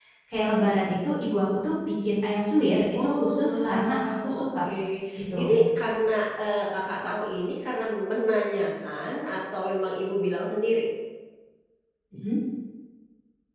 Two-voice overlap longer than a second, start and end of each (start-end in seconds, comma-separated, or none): 3.0-4.4